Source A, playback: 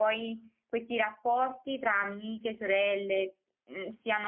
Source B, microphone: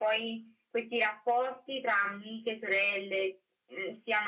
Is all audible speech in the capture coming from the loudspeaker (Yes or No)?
Yes